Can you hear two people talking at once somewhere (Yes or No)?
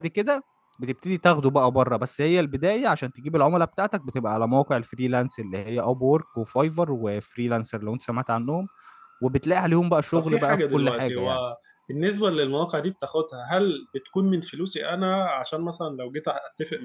Yes